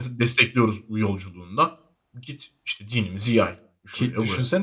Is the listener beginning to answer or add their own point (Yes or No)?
Yes